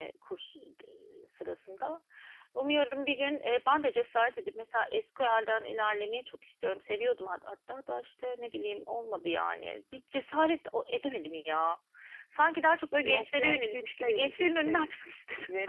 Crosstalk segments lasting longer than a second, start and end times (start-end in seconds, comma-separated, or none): 13.0-14.9